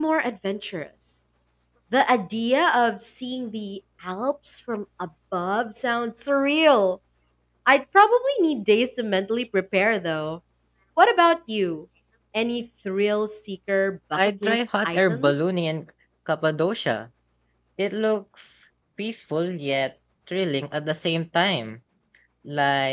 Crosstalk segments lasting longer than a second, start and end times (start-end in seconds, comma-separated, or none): 14.2-15.4